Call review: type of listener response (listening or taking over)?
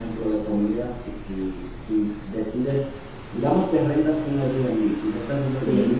listening